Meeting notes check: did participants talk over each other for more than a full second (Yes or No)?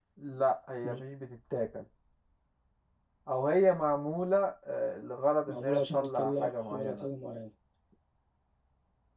Yes